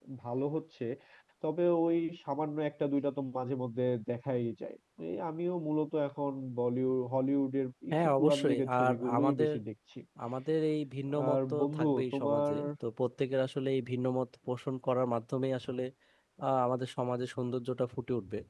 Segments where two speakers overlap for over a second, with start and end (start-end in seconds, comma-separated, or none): 7.9-9.5, 11.3-12.5